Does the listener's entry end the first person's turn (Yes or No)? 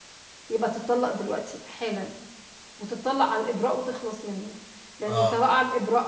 No